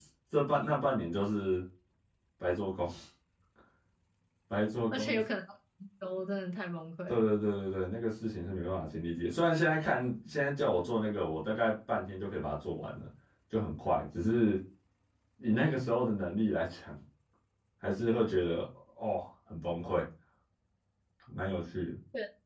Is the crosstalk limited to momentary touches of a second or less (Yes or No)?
Yes